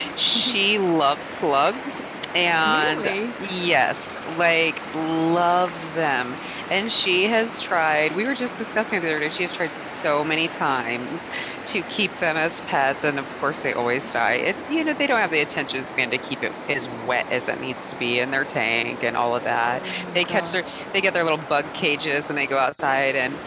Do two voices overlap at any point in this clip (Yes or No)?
Yes